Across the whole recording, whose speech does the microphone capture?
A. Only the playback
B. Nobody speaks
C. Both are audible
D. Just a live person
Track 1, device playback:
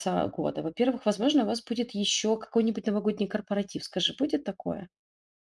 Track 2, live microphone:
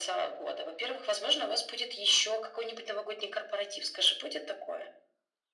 A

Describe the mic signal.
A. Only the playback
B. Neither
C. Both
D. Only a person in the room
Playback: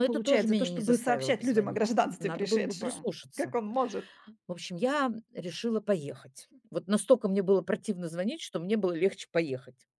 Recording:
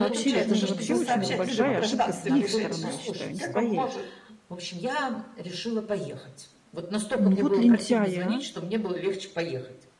C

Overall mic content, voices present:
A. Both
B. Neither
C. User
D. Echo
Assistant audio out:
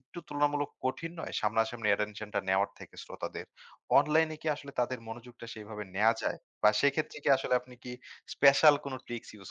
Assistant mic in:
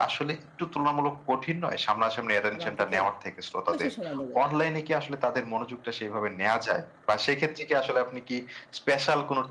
A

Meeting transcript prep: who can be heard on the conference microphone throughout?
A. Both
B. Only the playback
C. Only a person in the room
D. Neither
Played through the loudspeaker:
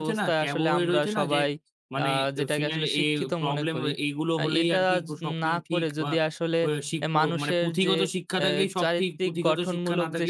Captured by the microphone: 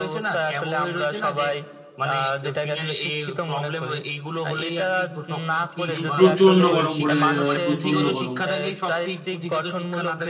A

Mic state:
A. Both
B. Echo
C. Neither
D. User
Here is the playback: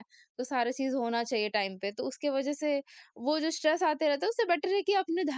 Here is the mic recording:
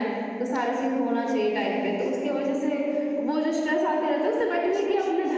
B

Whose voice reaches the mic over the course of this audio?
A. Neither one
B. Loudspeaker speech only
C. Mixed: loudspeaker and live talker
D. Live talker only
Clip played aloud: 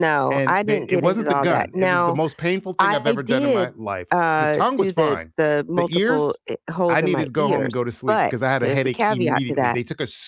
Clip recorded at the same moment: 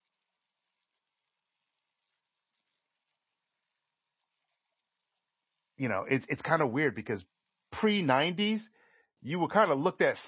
D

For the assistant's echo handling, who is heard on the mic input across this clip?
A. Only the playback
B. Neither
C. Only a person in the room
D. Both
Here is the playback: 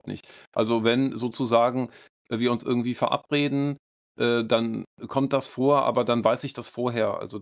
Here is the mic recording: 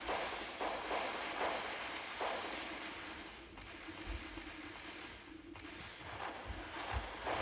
B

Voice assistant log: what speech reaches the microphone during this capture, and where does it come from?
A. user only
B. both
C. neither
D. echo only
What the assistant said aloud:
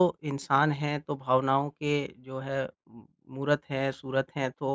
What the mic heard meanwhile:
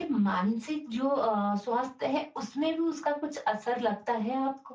A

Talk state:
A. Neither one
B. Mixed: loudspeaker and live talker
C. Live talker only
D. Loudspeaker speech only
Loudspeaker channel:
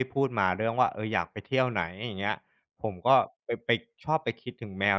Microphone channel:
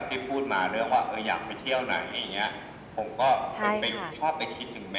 B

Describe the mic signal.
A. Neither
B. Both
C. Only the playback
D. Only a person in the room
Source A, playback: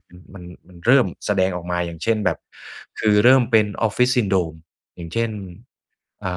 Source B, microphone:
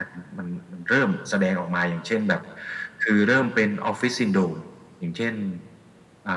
C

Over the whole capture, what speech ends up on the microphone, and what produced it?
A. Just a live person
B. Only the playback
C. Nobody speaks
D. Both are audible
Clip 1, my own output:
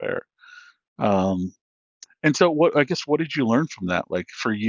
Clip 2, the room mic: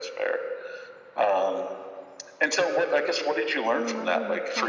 D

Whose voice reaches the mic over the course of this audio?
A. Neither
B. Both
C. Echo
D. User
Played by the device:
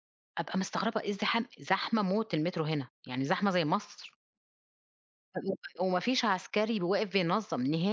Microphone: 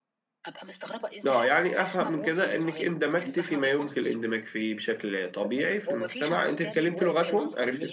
B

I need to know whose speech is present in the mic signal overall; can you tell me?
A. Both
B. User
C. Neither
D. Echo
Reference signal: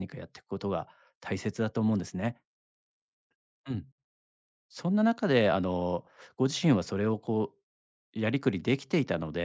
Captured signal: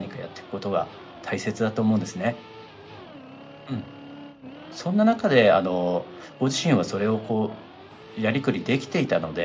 D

